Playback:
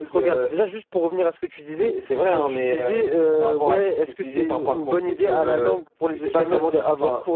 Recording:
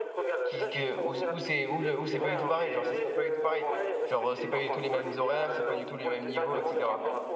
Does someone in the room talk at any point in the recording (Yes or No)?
Yes